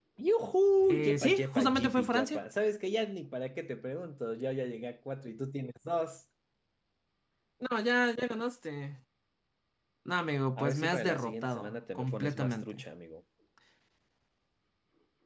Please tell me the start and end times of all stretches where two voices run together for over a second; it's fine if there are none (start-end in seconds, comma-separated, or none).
1.0-2.4, 10.6-12.8